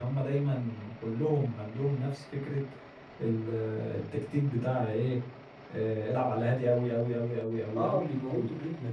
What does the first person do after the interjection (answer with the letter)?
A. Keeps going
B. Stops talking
B